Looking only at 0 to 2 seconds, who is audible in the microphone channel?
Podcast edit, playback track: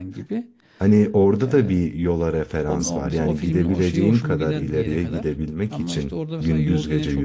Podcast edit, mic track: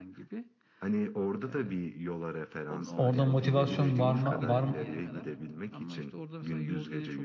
echo only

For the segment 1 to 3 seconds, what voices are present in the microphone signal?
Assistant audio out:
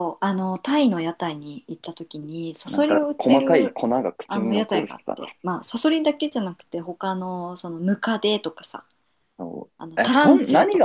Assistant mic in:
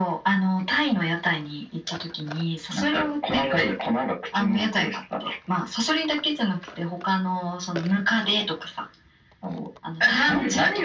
echo only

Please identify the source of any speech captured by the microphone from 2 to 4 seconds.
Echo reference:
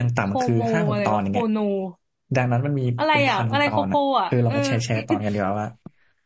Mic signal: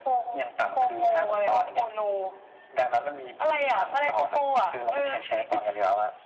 echo only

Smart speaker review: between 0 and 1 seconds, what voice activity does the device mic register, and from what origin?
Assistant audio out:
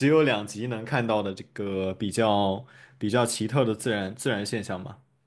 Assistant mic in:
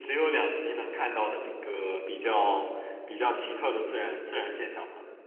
echo only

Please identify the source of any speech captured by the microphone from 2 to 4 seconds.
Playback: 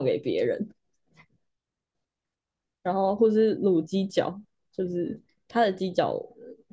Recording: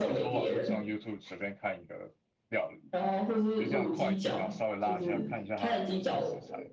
both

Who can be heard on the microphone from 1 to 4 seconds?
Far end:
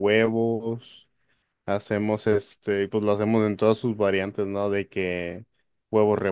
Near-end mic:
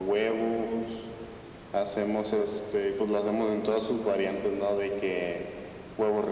echo only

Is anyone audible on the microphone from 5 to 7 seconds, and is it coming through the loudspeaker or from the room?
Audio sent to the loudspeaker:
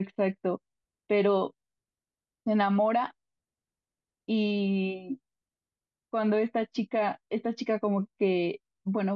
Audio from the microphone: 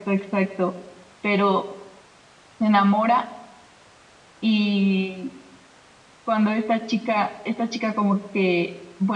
echo only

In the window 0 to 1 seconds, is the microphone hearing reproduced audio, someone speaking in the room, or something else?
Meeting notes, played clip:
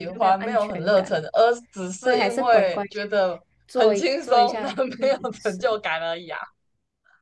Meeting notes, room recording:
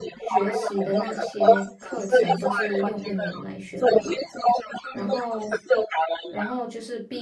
both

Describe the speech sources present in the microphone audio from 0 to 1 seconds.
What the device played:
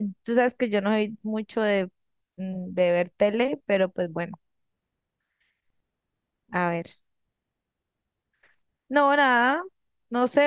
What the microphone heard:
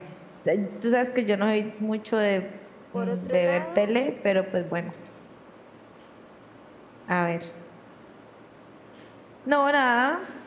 echo only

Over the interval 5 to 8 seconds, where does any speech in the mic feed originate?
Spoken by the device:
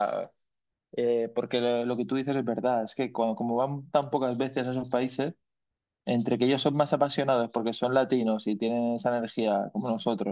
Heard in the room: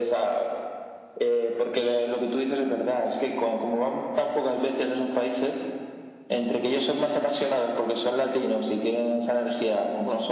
echo only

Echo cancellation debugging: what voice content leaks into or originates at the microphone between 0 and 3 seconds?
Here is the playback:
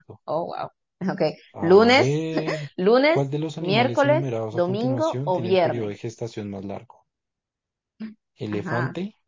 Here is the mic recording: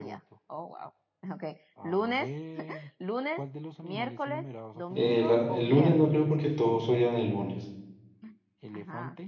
echo only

